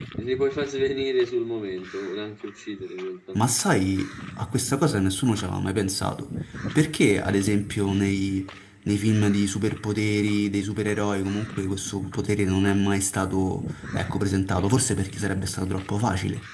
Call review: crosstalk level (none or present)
none